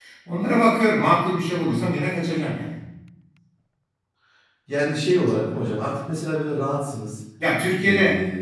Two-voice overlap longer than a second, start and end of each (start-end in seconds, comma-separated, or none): none